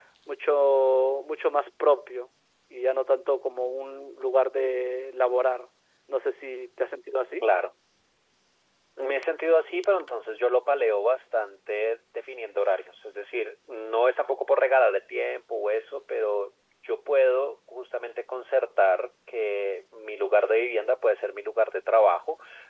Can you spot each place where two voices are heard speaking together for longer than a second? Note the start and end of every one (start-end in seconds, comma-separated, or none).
none